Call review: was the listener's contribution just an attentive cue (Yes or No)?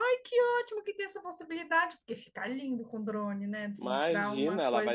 No